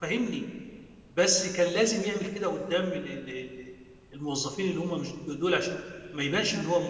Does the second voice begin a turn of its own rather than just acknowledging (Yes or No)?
No